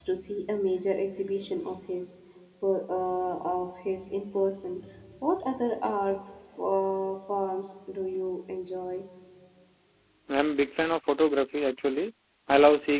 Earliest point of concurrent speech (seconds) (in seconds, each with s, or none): none